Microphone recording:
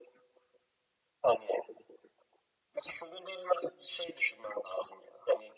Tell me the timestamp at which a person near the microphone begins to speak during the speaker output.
none

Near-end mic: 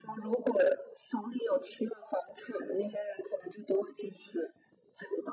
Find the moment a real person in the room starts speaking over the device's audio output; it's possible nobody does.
none

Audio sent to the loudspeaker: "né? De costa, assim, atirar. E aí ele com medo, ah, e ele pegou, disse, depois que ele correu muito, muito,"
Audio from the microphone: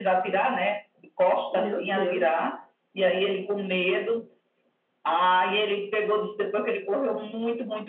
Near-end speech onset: 1.5 s

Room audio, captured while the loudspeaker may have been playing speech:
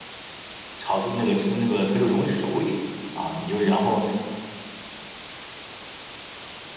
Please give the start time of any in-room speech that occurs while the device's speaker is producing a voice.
0.8 s

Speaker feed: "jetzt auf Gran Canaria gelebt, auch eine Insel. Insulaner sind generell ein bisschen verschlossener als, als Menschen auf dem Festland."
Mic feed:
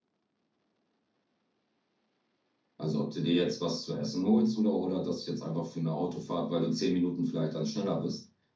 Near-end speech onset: 2.8 s

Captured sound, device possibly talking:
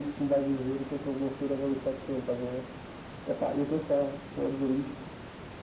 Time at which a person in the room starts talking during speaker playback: none

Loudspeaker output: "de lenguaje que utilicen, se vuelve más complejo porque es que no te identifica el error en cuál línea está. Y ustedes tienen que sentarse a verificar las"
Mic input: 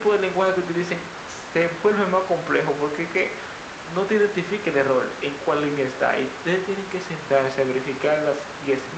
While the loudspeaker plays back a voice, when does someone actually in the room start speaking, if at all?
none

